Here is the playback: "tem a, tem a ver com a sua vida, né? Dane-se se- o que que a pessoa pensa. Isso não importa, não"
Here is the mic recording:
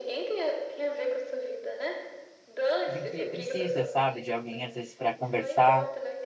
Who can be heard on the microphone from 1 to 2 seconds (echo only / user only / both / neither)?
echo only